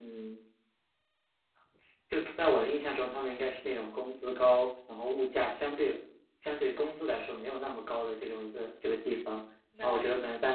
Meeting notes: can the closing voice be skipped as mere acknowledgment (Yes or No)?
Yes